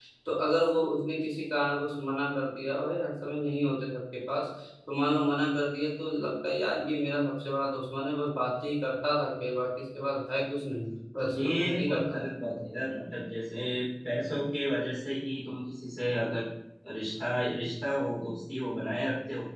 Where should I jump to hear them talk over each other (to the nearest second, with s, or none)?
11 s